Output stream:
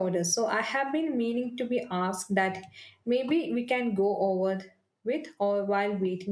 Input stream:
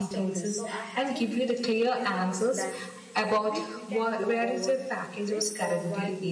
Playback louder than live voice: No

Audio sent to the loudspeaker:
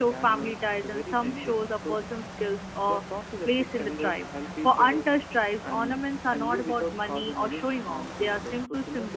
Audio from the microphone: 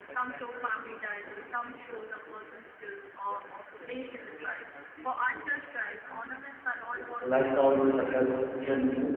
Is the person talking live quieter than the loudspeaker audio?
No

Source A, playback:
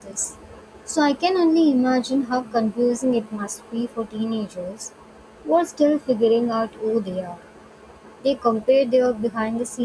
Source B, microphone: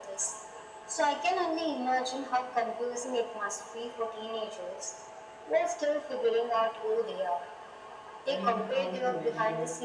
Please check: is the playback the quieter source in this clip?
No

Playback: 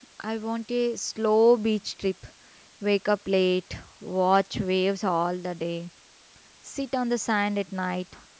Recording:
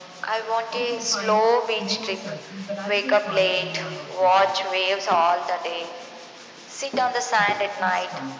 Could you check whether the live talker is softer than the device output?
Yes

